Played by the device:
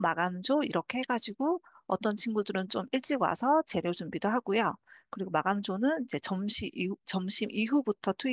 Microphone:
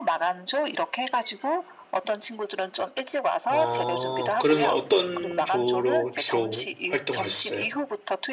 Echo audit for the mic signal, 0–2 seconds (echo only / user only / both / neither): echo only